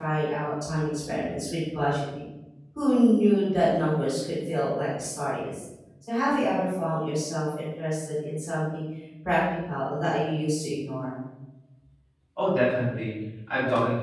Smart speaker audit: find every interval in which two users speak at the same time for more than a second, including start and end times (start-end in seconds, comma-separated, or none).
none